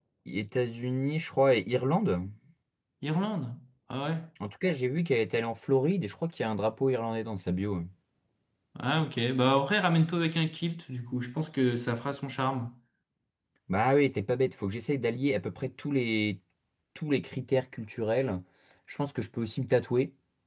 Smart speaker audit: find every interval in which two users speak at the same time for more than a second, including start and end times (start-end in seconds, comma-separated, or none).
none